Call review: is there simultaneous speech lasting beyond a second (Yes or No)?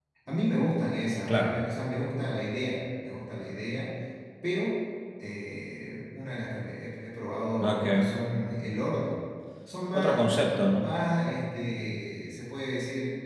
No